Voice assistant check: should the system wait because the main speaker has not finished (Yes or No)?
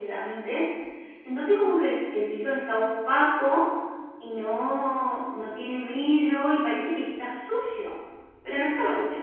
No